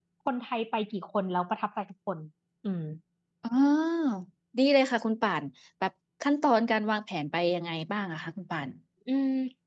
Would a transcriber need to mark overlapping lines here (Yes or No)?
No